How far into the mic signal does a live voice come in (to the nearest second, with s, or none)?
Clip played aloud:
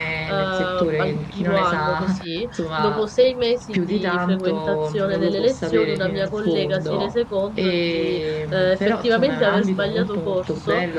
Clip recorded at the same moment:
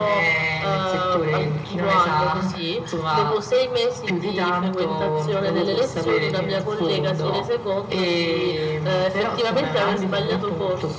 none